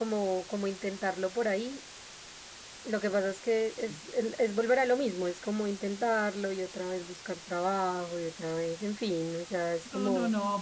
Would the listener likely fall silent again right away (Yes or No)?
No